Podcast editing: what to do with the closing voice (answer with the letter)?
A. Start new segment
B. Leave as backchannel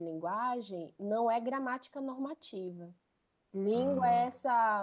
B